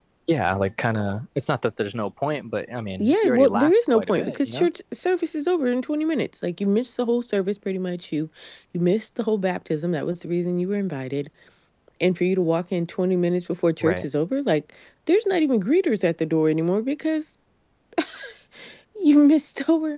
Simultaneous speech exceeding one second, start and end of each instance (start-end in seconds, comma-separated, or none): 3.0-4.7